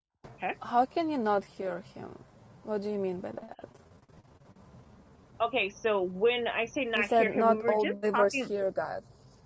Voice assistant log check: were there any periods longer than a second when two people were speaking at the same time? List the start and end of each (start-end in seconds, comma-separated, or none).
7.0-8.5